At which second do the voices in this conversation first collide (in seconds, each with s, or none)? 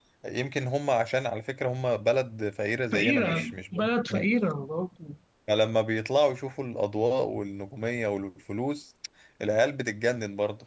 2.9 s